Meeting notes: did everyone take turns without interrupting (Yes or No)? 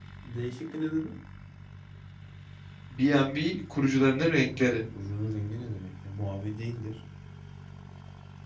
Yes